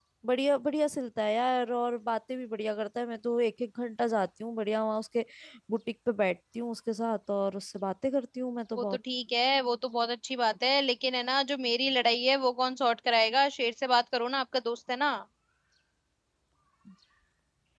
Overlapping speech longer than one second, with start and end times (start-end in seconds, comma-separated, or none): none